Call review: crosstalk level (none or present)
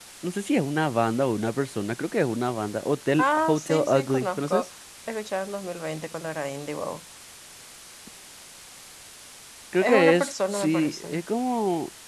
present